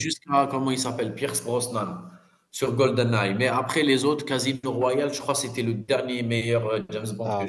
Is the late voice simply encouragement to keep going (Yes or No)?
No